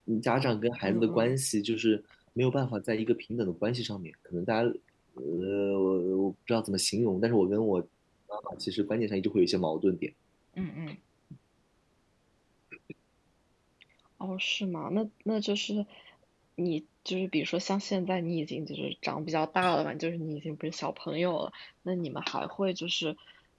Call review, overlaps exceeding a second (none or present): none